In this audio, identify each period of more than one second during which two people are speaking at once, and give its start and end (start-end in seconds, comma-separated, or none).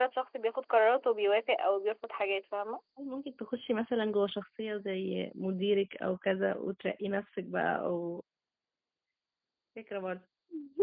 none